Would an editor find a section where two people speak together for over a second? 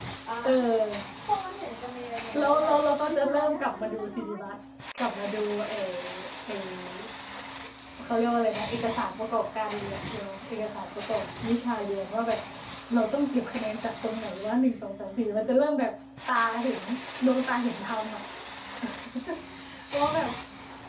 Yes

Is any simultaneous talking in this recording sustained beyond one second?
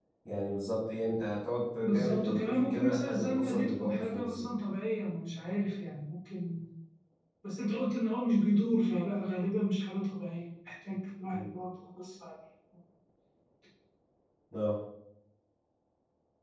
Yes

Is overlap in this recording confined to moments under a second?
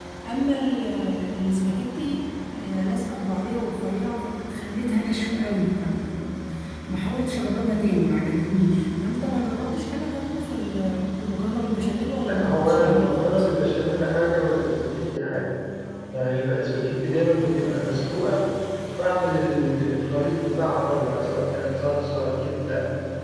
No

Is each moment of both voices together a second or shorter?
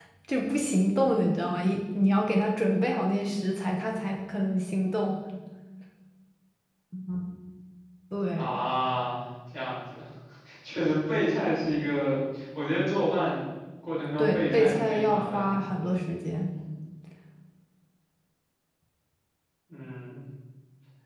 No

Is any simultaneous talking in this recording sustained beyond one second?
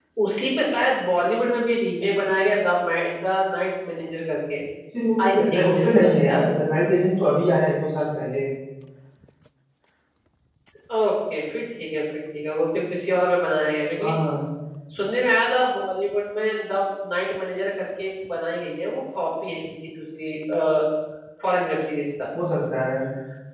Yes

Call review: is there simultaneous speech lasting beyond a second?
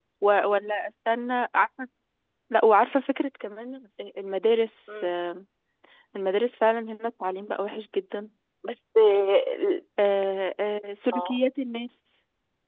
No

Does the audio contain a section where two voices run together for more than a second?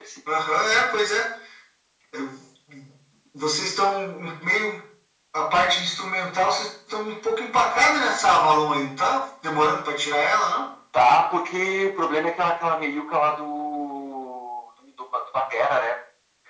No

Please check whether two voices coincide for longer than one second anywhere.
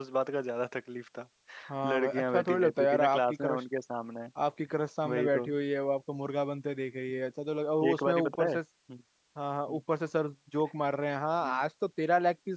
Yes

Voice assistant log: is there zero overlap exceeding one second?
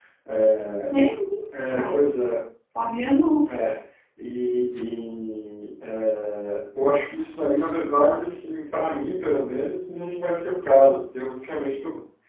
Yes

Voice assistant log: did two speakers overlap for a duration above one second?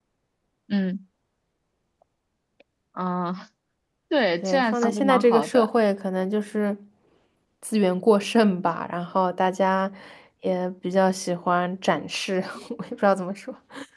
Yes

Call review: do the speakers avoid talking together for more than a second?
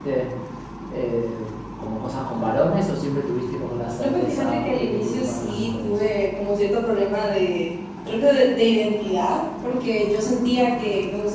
No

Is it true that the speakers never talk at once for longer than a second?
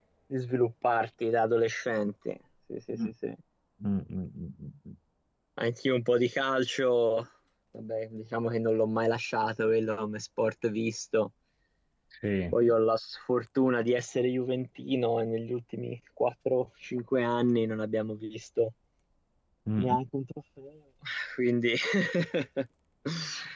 Yes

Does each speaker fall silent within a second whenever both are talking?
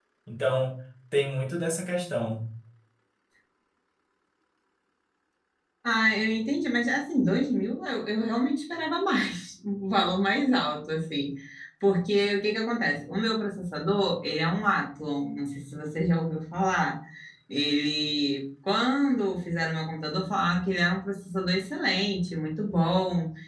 Yes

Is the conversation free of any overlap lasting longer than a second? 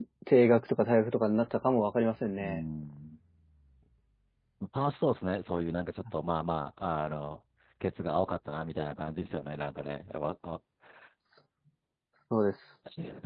Yes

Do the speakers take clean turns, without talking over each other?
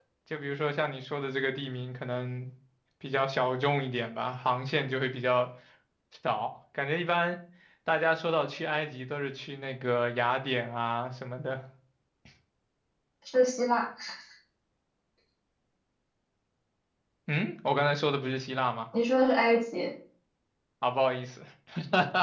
Yes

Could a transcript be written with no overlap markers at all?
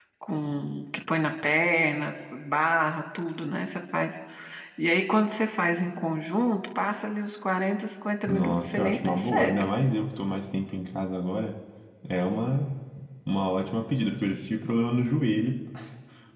No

